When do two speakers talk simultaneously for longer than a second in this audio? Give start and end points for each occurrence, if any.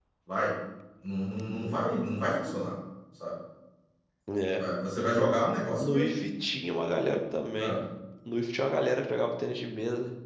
none

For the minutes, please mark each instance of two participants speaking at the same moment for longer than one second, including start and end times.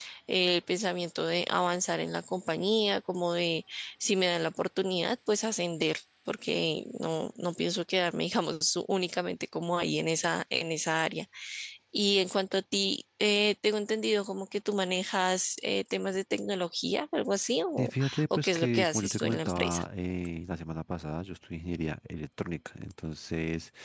17.8-19.8

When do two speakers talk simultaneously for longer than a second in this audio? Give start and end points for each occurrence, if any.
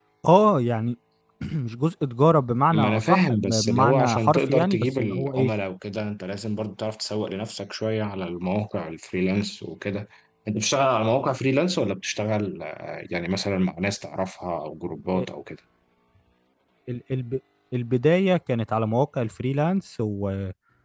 2.7-5.5

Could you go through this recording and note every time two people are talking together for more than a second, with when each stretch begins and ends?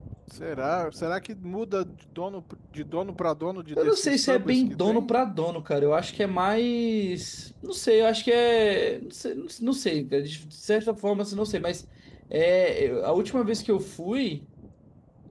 3.8-5.1

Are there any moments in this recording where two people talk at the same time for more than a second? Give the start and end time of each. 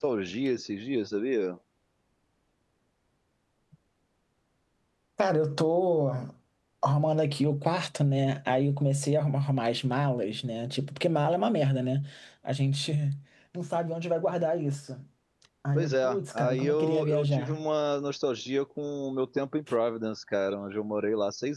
15.8-17.6

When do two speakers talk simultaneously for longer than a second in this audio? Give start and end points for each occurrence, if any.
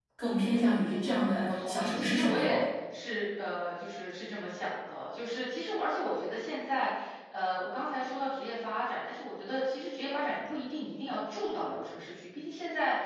0.5-2.6

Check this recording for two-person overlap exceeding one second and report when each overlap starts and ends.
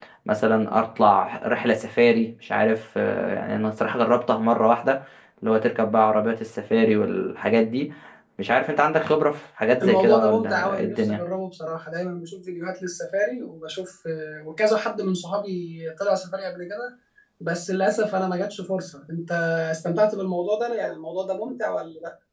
9.8-11.2

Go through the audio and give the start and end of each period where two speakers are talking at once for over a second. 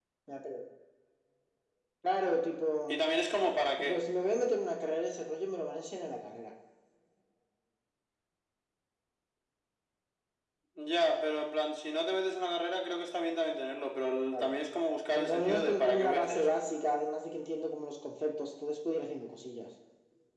15.1-16.6

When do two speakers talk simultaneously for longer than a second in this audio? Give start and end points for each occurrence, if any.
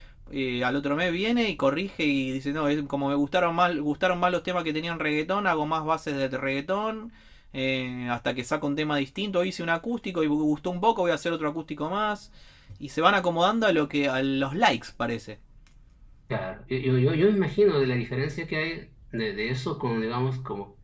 none

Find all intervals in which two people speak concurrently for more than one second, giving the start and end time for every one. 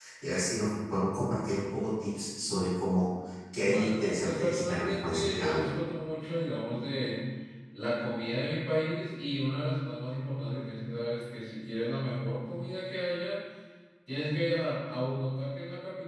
3.6-5.7

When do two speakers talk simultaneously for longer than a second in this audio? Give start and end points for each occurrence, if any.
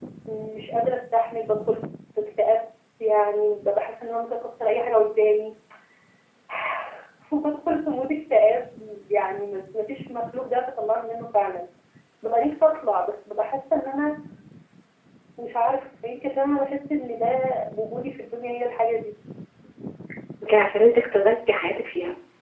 none

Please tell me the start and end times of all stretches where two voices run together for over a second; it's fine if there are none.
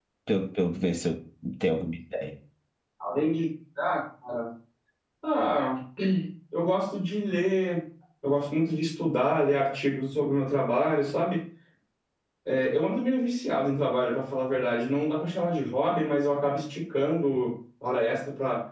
none

